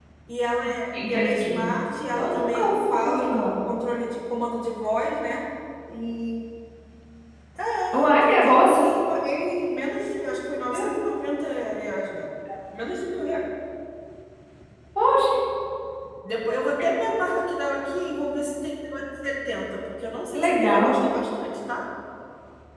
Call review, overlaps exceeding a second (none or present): present